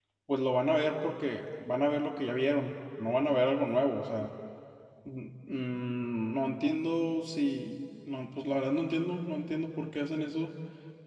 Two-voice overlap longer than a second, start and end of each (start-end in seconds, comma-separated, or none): none